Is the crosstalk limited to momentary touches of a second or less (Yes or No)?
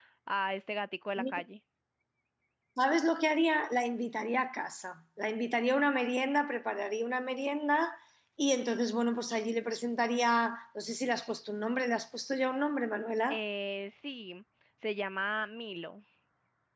Yes